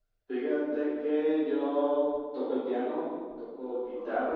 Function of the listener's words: listening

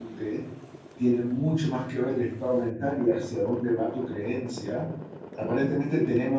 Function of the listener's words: listening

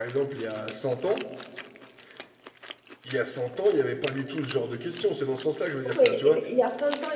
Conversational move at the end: taking over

